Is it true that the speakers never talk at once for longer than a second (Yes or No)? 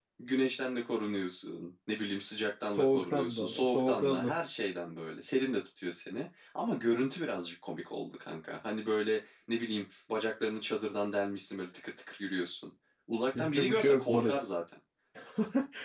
No